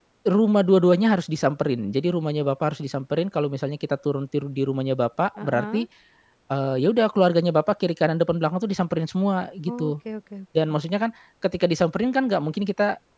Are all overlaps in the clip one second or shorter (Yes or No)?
Yes